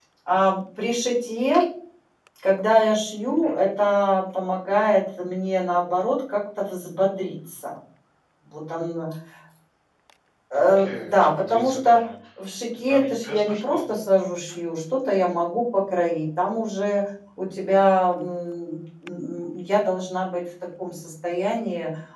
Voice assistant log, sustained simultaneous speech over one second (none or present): present